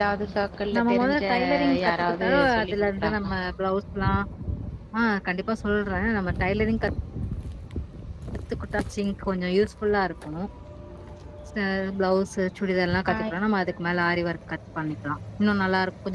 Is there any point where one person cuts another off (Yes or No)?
Yes